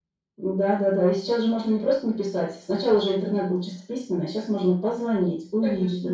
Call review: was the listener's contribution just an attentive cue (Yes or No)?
No